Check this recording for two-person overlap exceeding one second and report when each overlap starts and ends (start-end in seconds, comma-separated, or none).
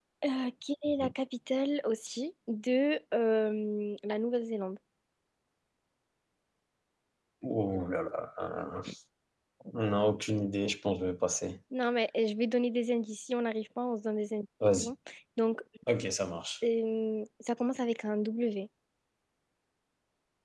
none